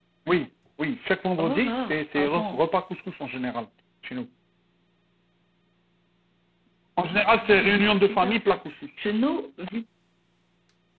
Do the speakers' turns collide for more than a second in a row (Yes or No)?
Yes